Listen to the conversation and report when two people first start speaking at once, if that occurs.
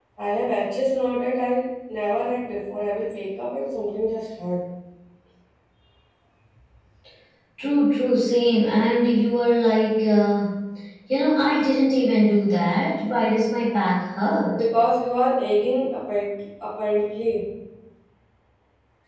none

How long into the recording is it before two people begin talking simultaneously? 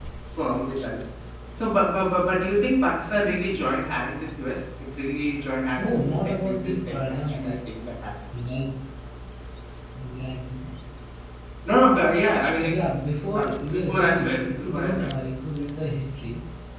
5.8 s

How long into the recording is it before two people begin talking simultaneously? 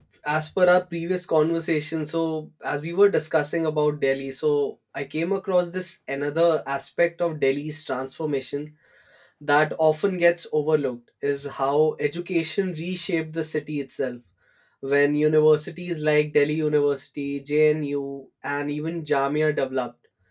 none

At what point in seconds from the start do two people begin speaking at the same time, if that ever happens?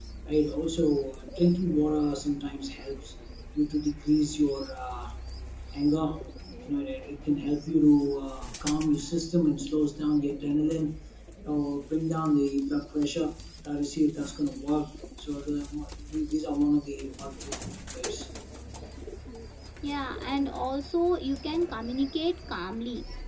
none

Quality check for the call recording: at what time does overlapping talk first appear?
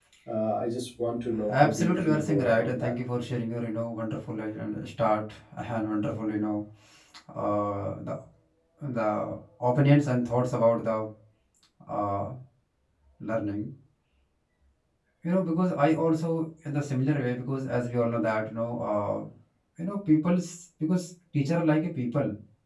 1.5 s

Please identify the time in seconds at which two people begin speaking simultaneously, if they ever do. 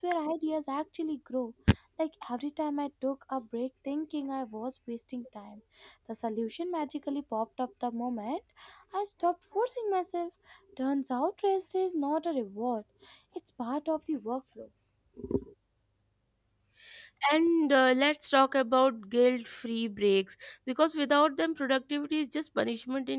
none

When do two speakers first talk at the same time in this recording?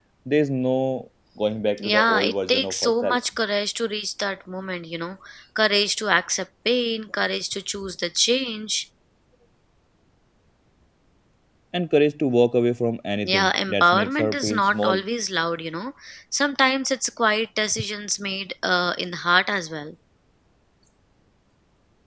1.8 s

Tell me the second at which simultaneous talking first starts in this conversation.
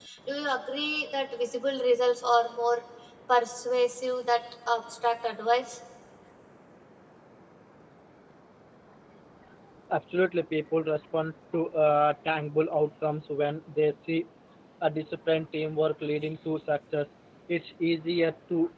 none

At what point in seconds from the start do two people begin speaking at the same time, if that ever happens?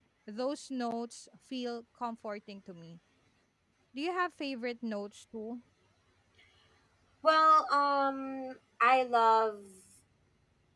none

